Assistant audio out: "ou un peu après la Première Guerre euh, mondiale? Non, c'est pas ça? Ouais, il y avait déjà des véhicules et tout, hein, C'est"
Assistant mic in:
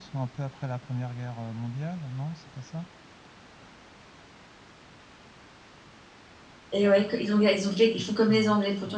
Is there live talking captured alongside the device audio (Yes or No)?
Yes